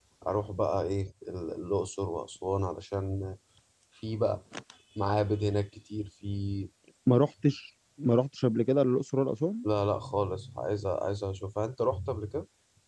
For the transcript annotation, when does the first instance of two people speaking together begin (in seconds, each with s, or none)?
none